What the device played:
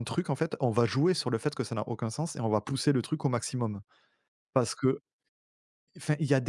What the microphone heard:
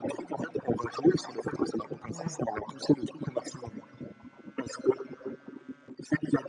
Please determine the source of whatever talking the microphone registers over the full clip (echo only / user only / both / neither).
both